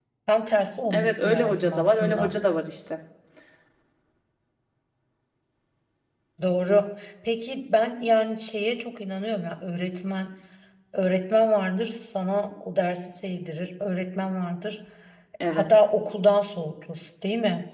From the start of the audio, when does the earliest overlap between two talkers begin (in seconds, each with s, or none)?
0.9 s